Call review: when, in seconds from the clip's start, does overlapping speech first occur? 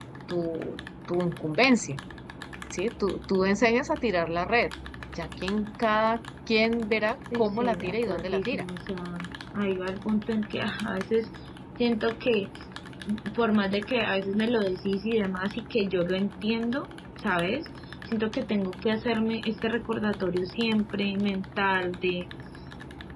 7.3 s

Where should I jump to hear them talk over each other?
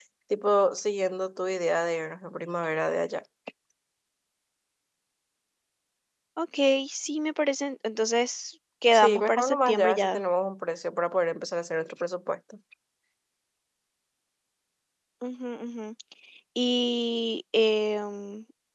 8.9 s

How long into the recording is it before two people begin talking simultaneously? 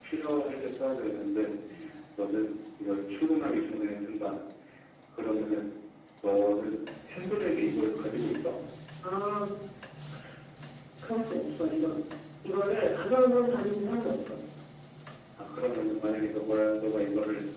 none

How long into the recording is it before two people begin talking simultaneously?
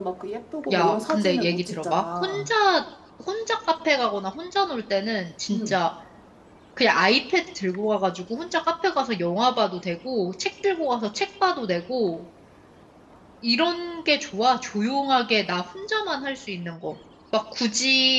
0.7 s

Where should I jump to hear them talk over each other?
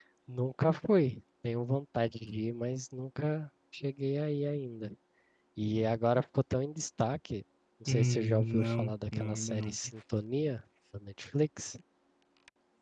7.9 s

